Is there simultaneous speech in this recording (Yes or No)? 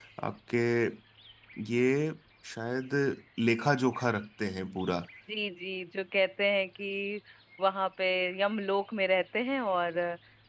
No